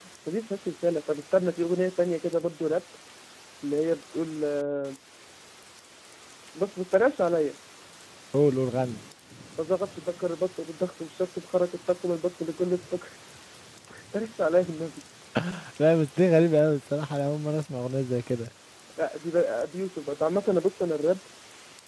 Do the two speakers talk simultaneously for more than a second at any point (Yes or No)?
No